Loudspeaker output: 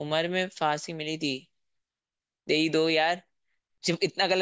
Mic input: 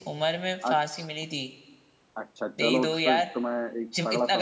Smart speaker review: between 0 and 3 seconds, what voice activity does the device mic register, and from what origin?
both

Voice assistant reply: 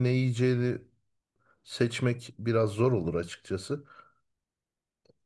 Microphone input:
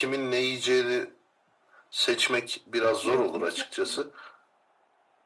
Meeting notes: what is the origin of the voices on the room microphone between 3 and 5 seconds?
both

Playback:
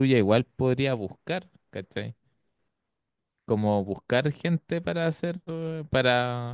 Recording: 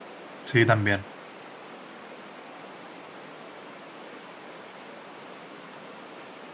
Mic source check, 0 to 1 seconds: user only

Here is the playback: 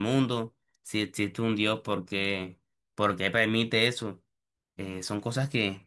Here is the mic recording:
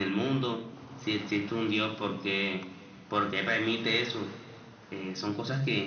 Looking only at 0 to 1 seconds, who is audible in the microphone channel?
echo only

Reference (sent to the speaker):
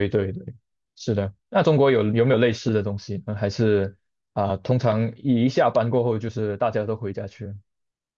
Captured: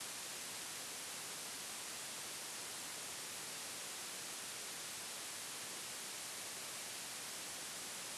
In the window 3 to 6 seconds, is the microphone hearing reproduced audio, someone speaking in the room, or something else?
neither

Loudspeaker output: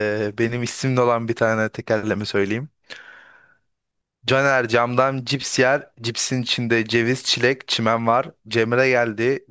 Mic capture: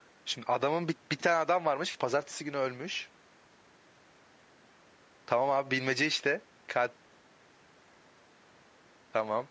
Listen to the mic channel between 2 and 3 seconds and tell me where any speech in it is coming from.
user only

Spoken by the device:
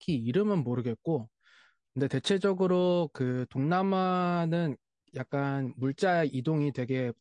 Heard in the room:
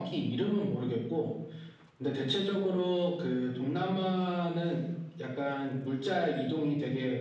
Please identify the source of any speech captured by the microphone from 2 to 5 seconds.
echo only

